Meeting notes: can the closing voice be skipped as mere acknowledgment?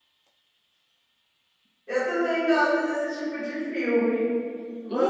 Yes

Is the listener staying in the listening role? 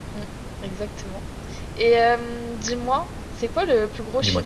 Yes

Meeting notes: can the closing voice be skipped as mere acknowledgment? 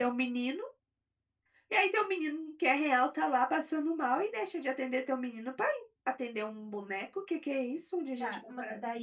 No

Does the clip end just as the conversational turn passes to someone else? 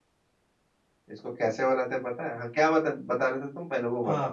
Yes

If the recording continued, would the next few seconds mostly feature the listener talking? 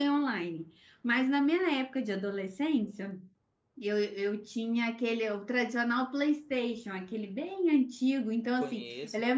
No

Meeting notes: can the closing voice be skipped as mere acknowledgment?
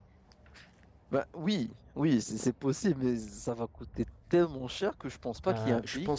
No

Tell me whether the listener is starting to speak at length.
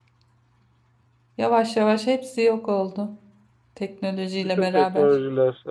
Yes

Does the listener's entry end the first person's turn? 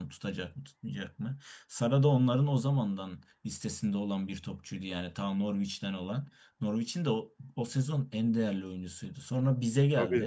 No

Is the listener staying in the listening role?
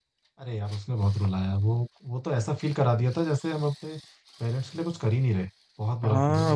No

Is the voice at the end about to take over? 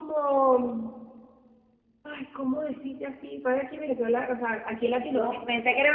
Yes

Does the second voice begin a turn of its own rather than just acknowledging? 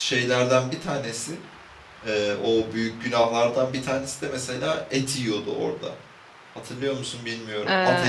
Yes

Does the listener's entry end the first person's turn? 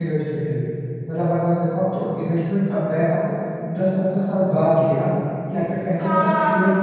Yes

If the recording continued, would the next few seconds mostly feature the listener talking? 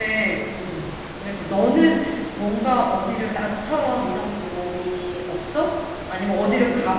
No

